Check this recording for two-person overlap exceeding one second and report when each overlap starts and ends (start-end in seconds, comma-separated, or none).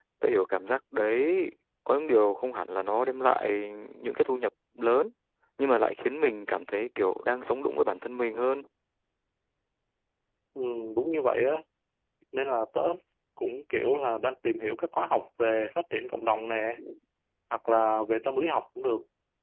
none